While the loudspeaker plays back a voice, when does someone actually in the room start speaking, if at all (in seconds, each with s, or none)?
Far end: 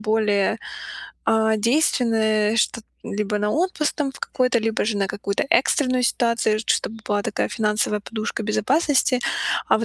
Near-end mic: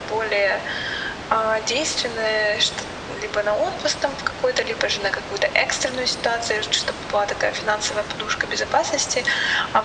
none